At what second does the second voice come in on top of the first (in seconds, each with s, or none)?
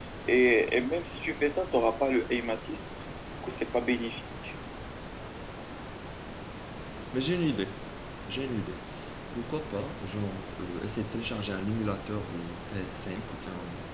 none